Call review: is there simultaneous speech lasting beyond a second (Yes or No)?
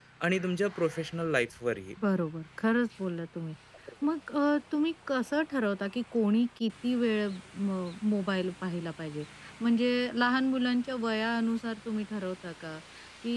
No